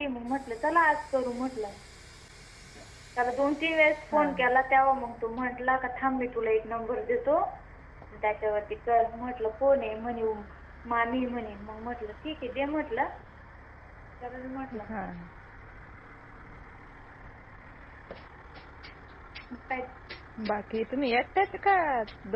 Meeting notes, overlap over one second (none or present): none